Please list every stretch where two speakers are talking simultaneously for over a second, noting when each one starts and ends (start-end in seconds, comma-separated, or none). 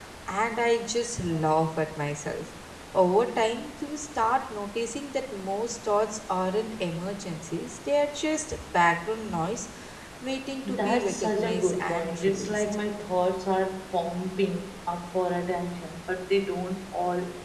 10.7-12.8